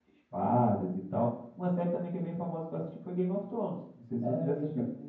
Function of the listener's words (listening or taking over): taking over